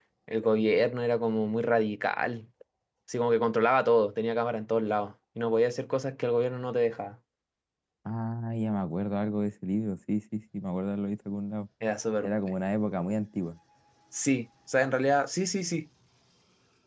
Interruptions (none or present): none